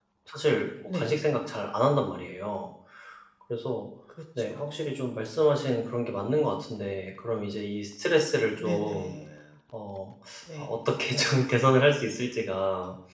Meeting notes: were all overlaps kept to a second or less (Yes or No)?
Yes